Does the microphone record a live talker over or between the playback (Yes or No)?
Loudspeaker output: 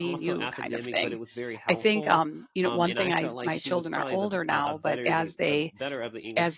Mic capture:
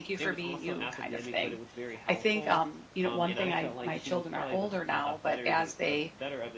No